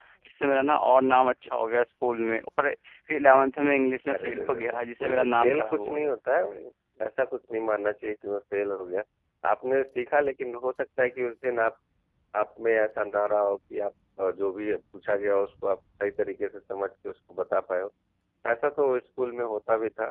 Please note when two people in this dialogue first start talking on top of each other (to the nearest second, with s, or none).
4 s